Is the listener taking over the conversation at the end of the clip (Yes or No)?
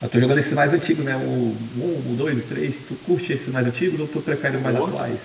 Yes